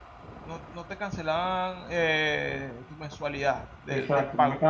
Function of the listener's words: taking over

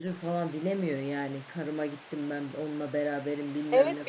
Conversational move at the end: taking over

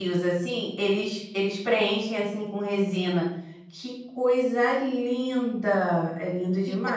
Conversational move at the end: taking over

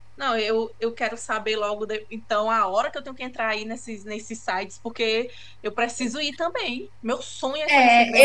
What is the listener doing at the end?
taking over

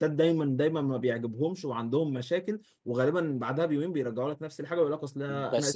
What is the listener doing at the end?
taking over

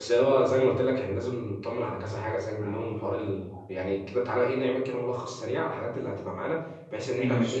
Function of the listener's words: listening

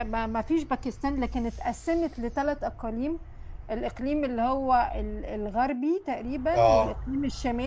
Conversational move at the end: listening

